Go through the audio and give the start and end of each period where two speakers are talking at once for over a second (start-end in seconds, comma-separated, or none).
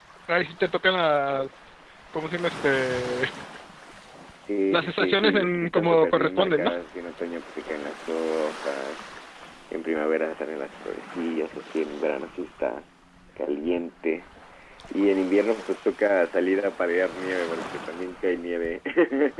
4.7-6.7